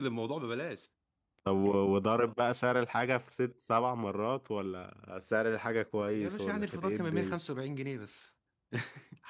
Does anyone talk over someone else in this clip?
Yes, from 6.1 s

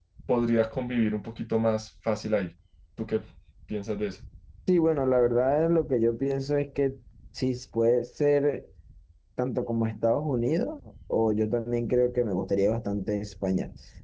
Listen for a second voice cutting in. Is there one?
No

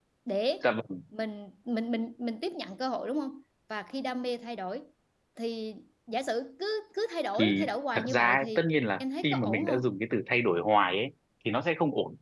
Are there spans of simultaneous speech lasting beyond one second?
Yes, from 7.3 s

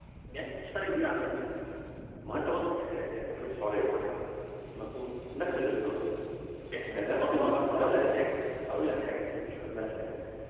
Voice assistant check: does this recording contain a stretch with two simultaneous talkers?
Yes, from 7.1 s

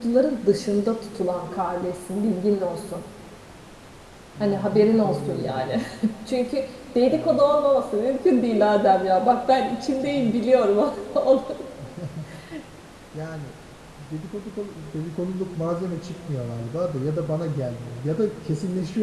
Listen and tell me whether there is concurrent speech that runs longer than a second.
Yes, from 4.4 s

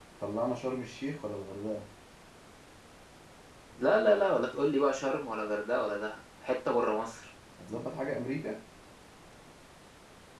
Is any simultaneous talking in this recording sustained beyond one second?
No

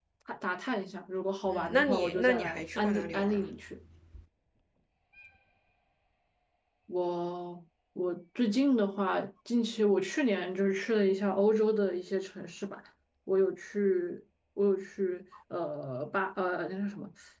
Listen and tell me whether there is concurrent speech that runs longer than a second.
Yes, from 1.4 s

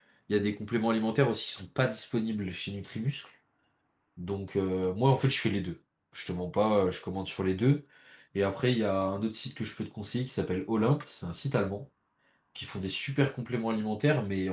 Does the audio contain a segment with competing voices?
No

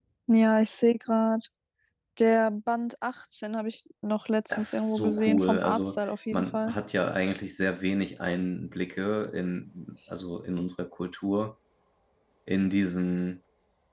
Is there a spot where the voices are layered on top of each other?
Yes, from 4.5 s

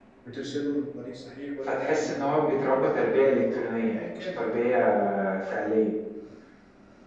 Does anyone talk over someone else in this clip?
Yes, from 1.7 s

